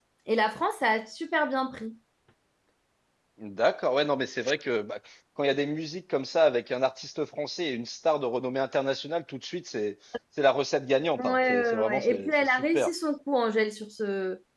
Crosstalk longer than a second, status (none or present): present